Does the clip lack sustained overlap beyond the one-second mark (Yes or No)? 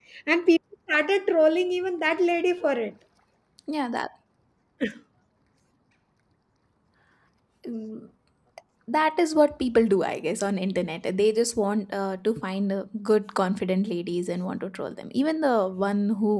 Yes